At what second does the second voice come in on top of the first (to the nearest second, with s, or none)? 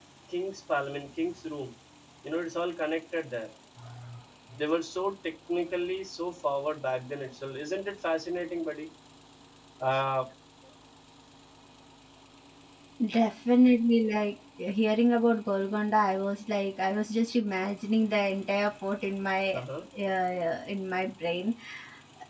none